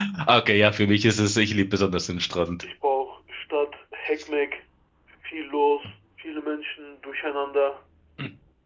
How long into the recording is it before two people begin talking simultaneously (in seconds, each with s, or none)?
none